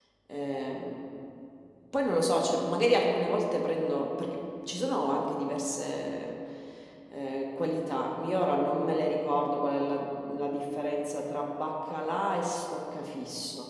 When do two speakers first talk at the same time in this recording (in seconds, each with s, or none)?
none